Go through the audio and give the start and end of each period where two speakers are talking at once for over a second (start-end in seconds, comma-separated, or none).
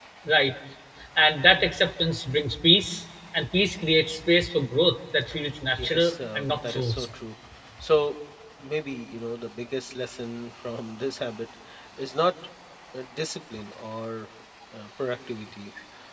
5.8-7.1